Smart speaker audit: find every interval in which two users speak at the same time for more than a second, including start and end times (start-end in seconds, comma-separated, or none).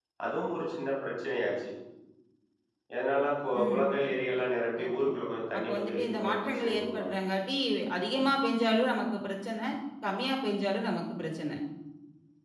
5.6-7.1